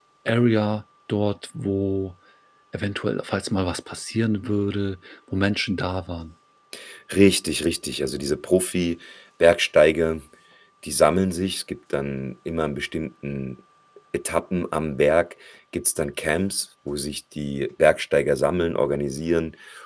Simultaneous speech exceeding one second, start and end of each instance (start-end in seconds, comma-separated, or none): none